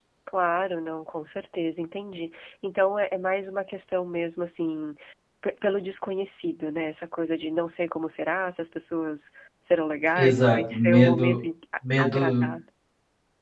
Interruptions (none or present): present